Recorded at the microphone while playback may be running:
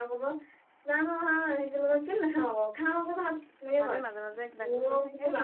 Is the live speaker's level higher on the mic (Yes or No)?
No